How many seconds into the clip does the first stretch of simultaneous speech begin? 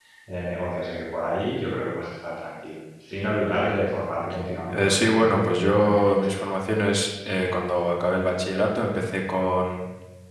4.7 s

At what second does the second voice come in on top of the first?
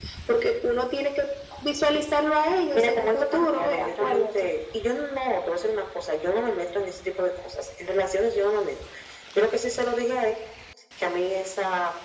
2.7 s

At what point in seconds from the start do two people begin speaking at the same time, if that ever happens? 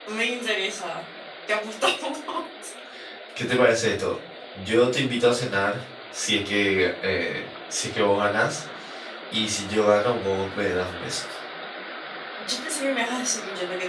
none

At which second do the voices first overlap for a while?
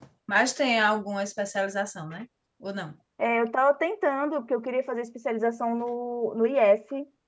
none

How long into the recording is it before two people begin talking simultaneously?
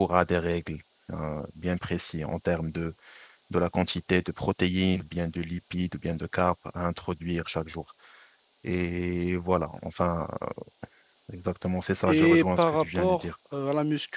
12.1 s

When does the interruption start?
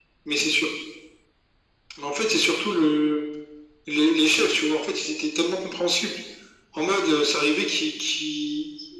none

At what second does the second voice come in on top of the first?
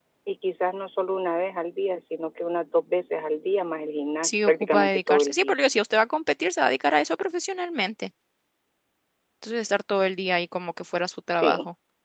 4.2 s

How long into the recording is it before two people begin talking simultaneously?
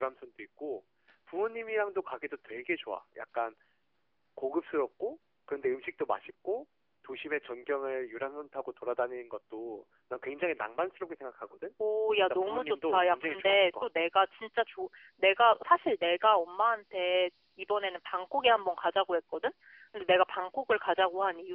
12.2 s

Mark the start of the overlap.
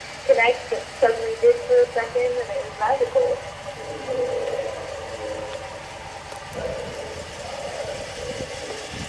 none

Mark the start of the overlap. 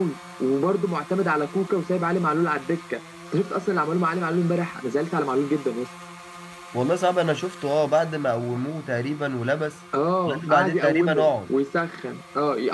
10.3 s

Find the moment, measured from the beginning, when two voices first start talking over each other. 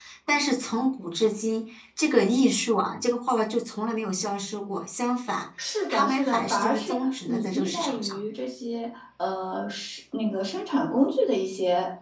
5.9 s

